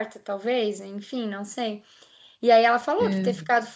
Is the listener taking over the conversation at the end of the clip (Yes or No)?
No